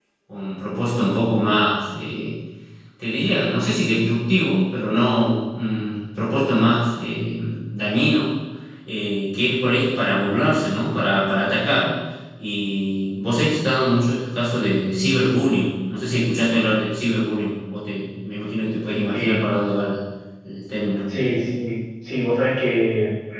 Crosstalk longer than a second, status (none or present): none